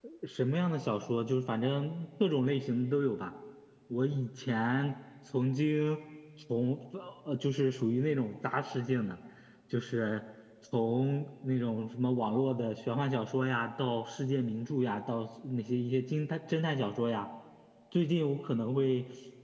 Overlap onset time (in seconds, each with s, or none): none